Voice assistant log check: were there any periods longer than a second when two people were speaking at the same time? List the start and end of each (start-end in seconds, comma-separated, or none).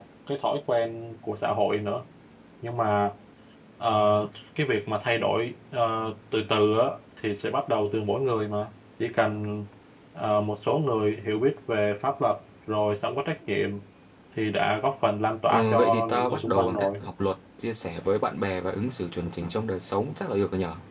15.5-17.0